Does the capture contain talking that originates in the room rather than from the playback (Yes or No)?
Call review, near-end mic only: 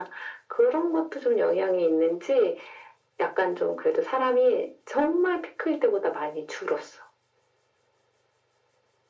No